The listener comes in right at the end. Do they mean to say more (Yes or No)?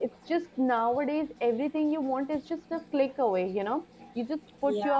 No